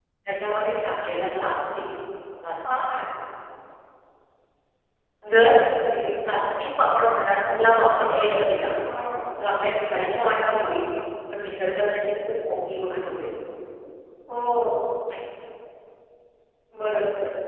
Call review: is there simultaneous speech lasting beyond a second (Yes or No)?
No